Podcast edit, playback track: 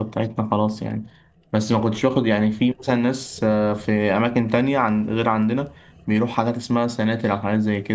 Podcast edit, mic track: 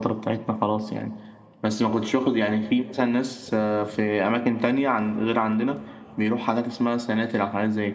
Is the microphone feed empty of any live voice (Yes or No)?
Yes